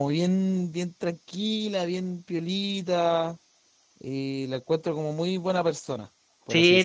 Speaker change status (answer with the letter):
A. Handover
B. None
A